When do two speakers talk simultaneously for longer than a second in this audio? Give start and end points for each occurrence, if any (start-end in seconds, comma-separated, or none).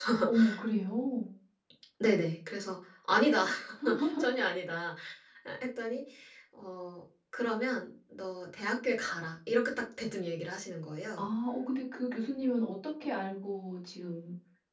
none